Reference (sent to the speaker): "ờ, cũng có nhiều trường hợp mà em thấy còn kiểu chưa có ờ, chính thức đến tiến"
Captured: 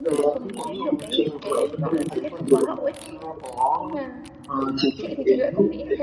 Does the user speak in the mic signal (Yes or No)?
Yes